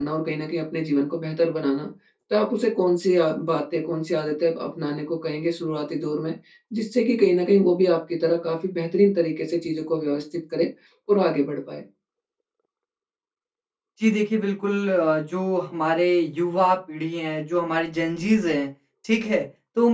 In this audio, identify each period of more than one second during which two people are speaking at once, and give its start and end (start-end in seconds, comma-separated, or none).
none